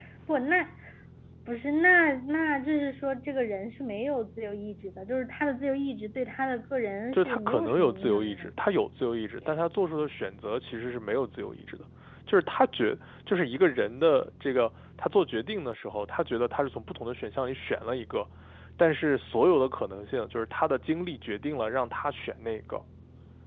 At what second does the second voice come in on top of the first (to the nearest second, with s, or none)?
7 s